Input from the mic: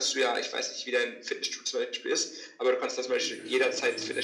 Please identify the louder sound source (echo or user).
echo